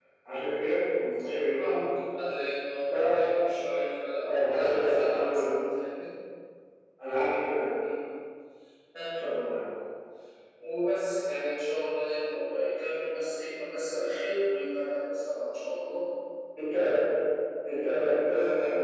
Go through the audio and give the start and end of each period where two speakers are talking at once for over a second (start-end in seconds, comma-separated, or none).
4.3-5.5